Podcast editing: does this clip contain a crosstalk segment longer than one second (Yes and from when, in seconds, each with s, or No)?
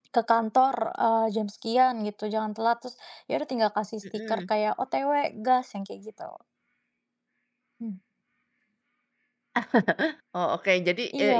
No